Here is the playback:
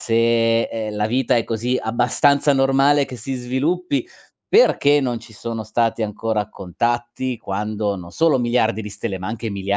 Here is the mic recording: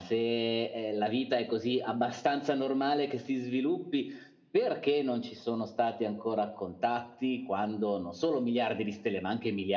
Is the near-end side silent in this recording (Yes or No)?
Yes